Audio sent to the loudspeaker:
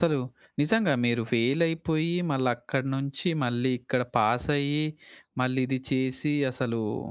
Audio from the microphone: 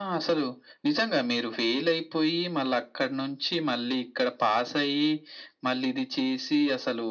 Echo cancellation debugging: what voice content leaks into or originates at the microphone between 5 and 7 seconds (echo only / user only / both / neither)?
echo only